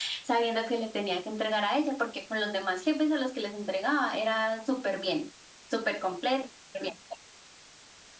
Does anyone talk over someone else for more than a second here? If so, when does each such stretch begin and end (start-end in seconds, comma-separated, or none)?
none